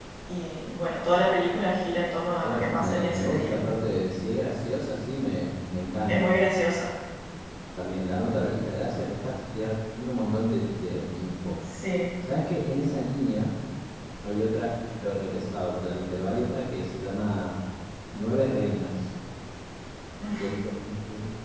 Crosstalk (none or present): present